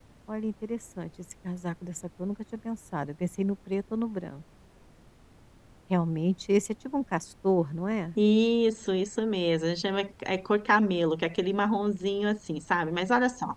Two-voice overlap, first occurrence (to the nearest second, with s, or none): none